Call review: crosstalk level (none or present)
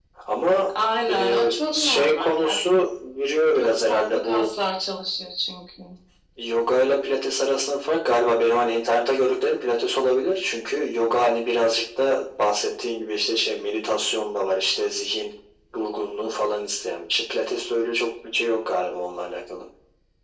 present